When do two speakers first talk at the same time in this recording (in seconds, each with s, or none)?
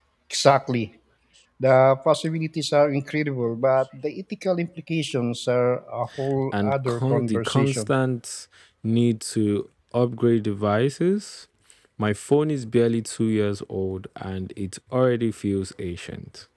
6.5 s